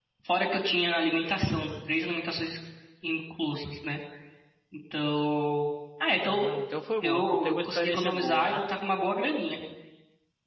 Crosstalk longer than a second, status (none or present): present